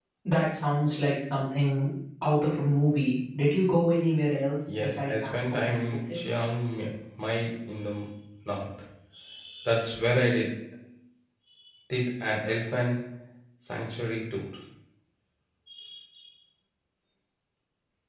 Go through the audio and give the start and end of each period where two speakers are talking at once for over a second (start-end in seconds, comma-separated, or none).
4.7-6.2